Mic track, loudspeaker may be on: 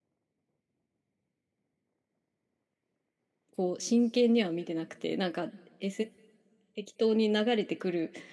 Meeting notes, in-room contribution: present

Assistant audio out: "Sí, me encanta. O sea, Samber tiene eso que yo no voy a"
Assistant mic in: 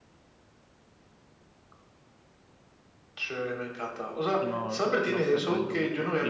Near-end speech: present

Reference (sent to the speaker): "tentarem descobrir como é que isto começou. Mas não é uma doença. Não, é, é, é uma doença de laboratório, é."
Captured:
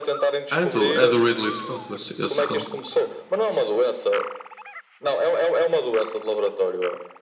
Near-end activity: present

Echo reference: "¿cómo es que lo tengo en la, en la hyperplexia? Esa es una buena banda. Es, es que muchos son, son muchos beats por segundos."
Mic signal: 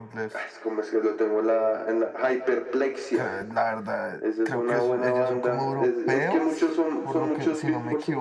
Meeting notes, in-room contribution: present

